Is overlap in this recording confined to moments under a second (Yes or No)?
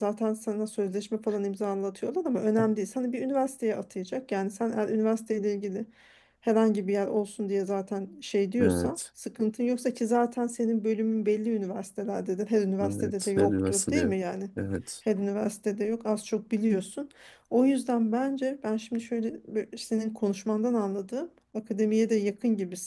No